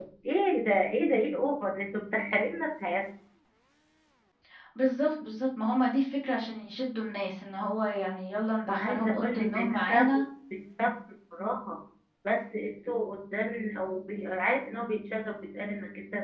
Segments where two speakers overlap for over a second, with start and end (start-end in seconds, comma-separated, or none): 8.7-10.2